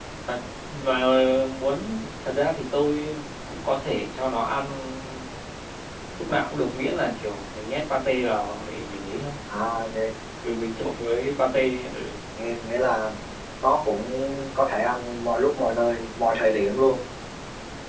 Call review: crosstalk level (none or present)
none